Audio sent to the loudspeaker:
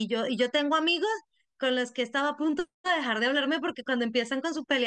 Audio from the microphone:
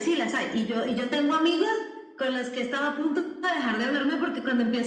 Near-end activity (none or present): none